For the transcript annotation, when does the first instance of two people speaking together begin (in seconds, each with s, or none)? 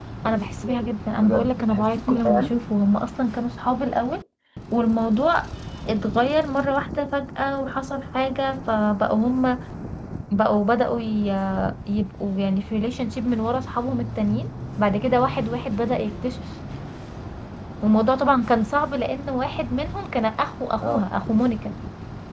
1.2 s